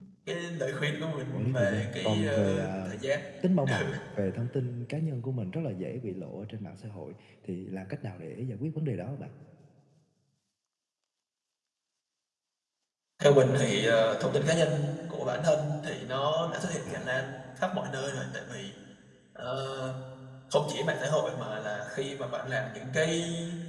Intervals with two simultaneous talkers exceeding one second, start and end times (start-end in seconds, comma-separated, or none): 1.3-2.9